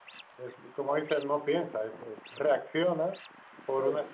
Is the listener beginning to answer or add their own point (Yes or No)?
No